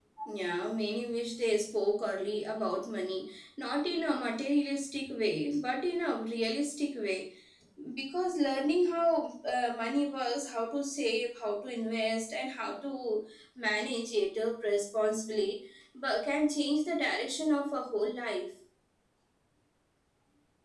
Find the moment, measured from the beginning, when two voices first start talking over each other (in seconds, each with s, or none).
none